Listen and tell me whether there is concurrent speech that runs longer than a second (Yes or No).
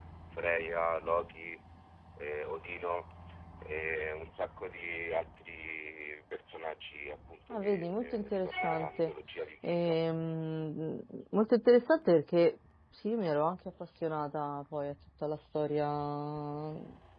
Yes